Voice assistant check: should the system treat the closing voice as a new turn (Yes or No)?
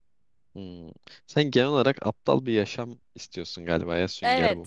Yes